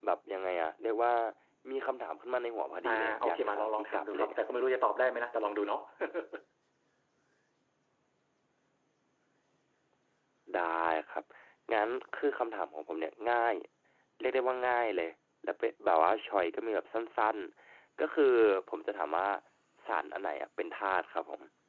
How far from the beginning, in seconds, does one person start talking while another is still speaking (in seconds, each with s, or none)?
2.8 s